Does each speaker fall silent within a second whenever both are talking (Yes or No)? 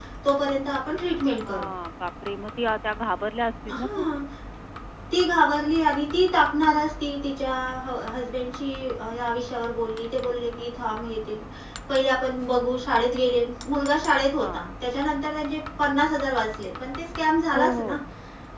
Yes